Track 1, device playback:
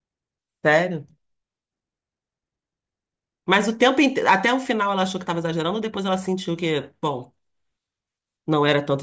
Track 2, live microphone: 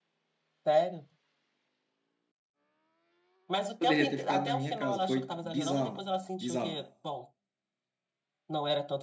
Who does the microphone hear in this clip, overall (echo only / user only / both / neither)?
both